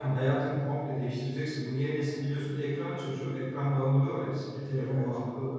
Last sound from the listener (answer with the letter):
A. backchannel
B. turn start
A